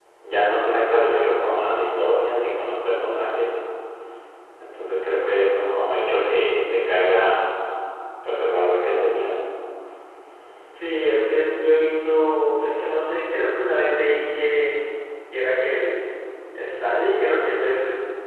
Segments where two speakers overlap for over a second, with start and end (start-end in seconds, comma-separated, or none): none